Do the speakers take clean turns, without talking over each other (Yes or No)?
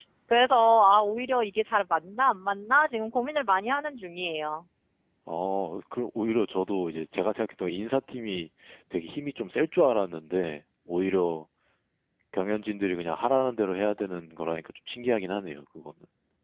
Yes